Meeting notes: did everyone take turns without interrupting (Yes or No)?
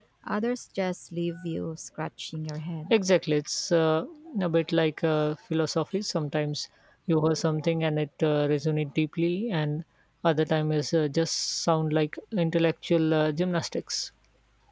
Yes